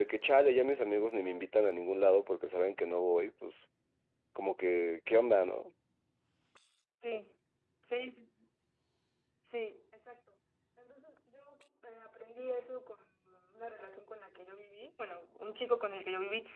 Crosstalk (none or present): none